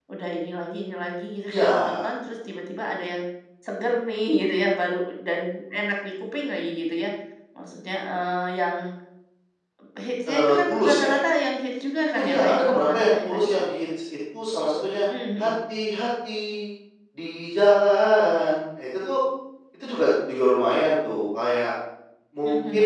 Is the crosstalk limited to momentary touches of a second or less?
No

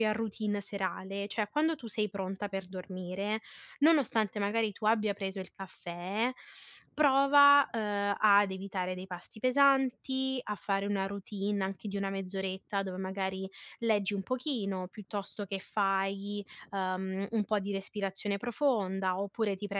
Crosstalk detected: No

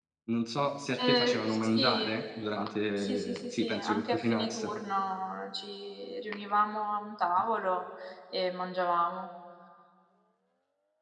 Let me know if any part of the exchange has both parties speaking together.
Yes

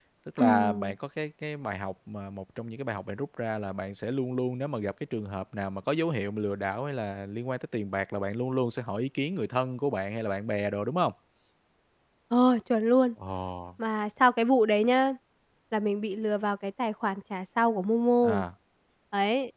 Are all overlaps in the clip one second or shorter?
Yes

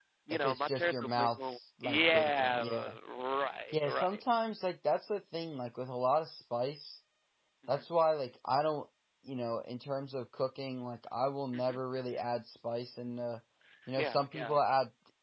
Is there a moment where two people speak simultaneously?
Yes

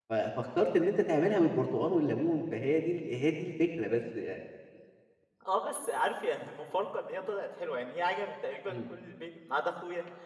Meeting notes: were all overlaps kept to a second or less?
Yes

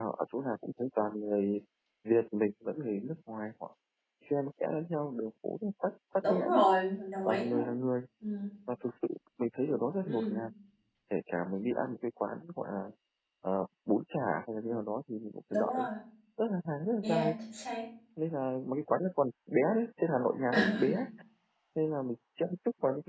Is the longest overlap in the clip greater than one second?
No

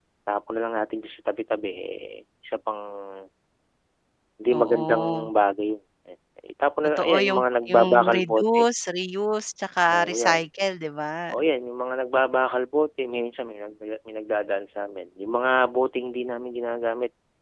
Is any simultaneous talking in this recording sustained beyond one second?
Yes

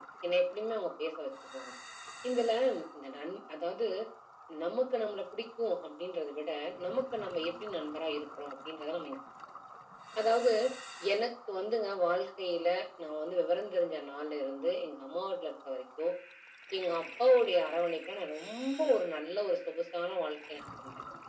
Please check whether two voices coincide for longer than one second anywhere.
No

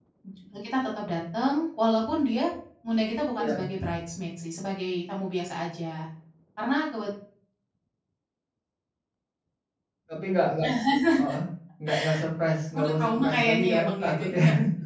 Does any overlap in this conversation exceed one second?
Yes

